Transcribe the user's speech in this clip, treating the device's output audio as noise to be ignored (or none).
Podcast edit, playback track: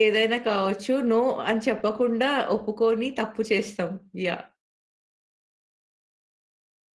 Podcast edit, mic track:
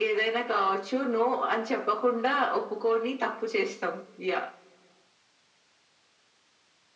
none